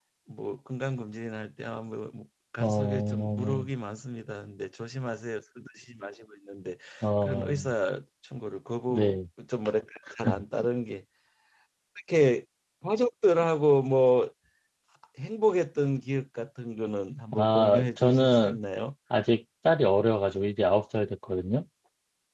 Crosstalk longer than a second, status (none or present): present